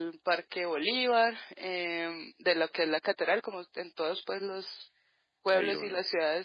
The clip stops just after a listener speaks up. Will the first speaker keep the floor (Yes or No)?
Yes